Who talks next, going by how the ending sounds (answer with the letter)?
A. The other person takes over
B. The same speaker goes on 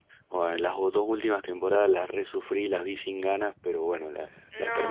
A